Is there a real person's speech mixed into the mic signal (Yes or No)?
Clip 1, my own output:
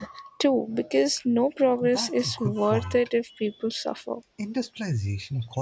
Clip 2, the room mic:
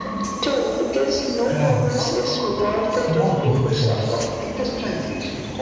Yes